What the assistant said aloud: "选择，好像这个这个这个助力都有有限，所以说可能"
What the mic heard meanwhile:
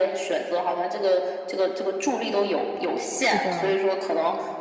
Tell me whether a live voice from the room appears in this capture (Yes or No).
Yes